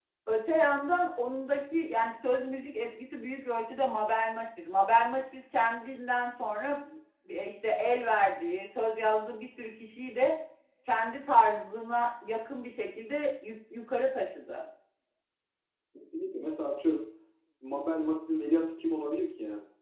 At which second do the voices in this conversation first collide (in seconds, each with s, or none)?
none